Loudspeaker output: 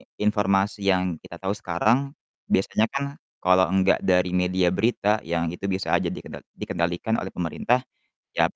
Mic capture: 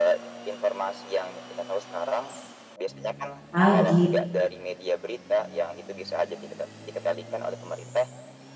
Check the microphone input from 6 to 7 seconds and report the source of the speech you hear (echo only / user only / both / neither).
echo only